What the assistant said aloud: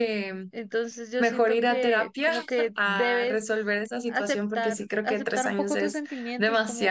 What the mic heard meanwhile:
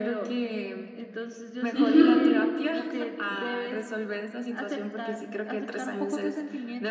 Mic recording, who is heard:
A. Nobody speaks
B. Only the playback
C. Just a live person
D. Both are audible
D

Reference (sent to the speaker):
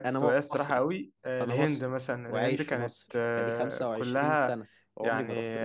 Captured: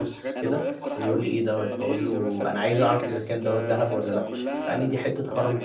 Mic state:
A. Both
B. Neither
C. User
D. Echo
A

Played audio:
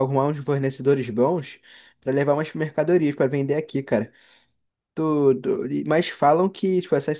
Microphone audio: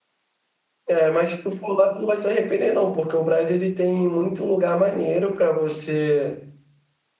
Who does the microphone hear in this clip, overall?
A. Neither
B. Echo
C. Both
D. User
D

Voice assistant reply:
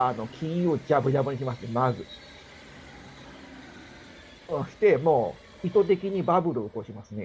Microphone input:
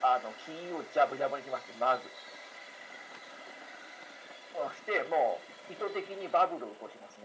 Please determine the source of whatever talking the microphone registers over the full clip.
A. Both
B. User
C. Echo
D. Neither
C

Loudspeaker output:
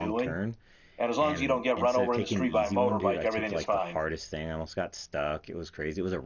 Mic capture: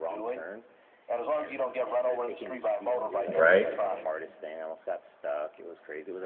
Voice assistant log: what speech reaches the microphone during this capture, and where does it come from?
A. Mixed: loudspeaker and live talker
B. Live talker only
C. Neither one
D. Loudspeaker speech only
A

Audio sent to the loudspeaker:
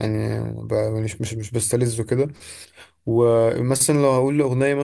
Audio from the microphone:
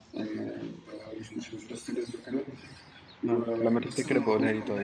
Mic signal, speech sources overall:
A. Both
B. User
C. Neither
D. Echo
A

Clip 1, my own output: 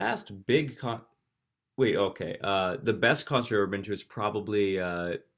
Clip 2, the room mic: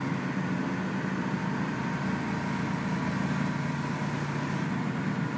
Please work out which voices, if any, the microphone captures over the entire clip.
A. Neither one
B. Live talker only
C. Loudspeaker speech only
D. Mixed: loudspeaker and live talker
A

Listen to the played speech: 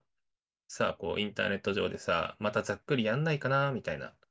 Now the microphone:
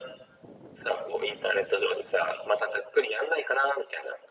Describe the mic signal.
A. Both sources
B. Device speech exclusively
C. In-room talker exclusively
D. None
B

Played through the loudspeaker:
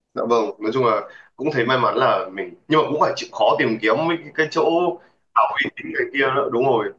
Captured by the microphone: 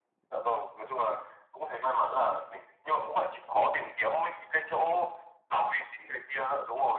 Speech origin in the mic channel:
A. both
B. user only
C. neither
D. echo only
D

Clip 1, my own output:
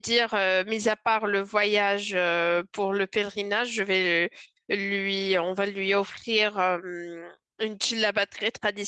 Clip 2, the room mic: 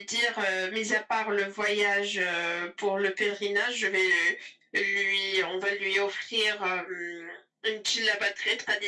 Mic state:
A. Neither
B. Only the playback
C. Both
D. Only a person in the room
B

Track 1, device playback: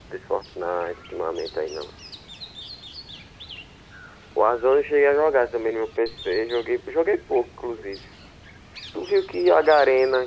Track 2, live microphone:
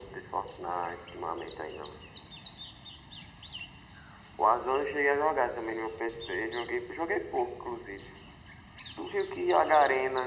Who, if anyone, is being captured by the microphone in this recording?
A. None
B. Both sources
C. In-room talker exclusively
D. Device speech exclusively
D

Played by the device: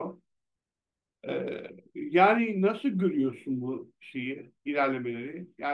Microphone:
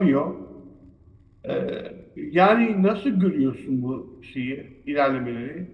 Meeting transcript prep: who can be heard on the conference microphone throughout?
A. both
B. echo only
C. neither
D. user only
B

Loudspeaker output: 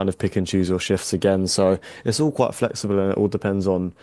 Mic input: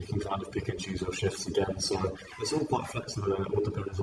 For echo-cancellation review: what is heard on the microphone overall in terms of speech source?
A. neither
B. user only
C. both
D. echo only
D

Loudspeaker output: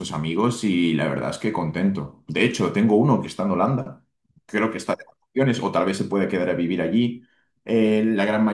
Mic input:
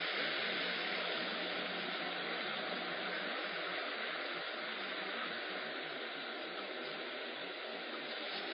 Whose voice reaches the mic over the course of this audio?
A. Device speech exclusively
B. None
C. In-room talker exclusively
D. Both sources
B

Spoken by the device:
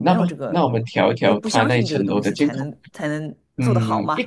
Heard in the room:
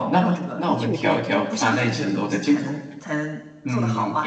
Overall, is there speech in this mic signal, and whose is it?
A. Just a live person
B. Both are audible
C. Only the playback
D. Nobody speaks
B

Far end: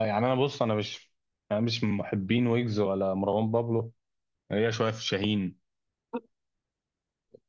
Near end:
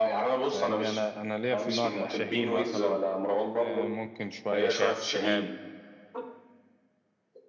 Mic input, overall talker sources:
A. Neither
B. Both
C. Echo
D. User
B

